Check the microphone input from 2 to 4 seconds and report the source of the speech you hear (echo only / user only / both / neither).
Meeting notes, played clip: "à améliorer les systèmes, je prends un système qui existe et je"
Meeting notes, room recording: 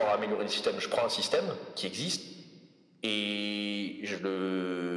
echo only